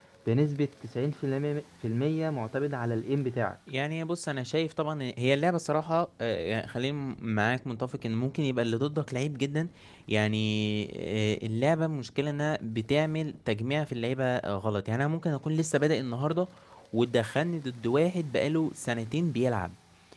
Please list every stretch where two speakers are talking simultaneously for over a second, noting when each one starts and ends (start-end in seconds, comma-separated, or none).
none